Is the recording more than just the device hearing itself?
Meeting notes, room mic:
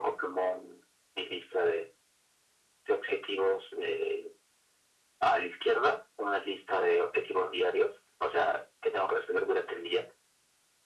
No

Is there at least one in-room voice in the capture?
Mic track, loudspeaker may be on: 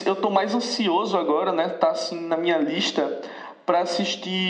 No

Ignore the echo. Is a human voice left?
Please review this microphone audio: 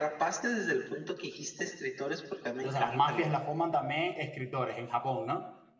Yes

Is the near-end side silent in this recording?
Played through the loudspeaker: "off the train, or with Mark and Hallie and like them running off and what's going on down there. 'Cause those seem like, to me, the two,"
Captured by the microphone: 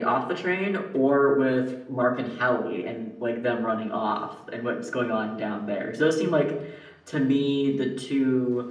Yes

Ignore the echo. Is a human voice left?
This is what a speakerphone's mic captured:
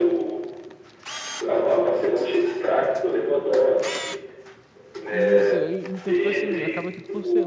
Yes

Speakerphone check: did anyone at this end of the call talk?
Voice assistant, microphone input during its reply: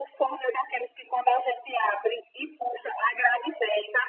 No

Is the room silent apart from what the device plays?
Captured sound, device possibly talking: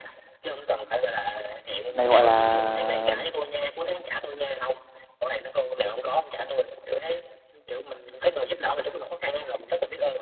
No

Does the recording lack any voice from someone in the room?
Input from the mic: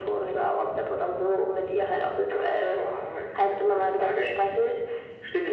Yes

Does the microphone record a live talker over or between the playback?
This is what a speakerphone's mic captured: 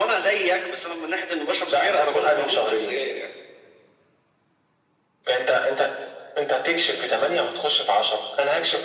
No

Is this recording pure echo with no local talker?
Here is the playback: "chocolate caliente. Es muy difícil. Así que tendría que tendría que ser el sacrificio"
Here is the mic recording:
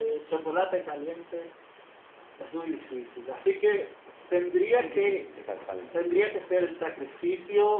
No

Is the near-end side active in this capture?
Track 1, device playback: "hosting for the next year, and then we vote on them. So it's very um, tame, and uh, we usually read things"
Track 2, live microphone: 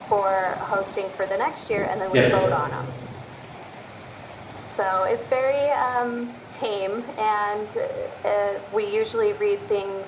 Yes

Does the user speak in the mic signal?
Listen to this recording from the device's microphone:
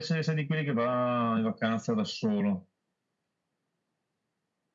No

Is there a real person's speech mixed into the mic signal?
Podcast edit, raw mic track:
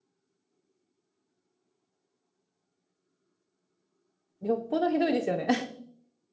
Yes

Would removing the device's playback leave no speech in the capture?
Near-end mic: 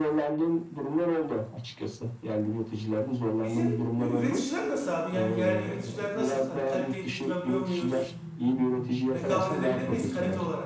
No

